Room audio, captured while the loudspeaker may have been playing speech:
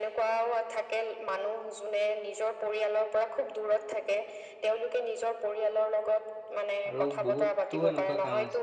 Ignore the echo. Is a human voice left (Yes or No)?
Yes